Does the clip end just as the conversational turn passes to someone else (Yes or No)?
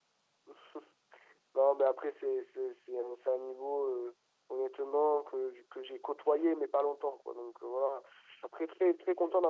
No